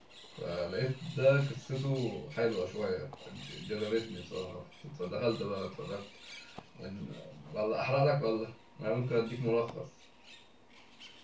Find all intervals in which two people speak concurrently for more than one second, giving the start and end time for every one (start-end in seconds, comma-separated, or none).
none